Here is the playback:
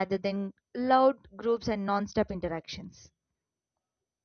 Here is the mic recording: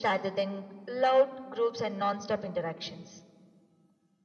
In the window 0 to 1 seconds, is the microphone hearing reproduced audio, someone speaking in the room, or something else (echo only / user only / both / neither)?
echo only